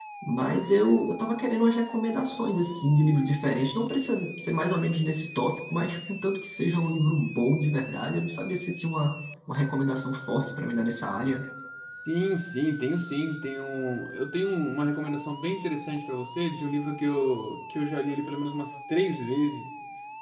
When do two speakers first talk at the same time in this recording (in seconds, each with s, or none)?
none